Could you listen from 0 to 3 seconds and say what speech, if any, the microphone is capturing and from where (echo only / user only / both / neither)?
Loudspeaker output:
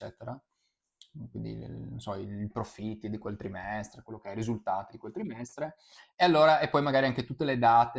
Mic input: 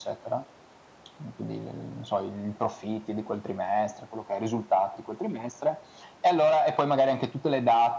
echo only